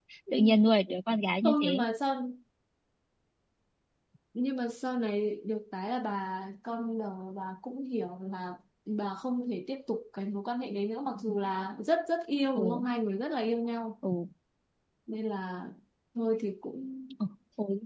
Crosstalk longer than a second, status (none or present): none